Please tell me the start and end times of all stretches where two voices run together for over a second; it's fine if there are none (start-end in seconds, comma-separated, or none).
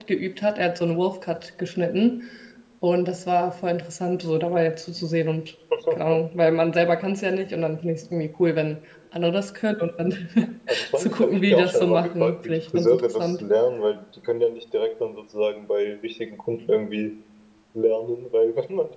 11.0-13.4